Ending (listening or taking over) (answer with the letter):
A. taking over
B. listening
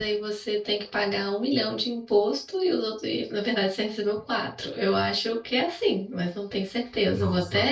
A